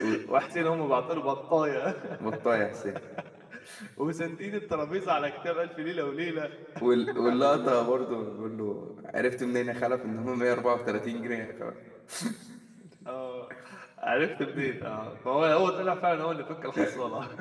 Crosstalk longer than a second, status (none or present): none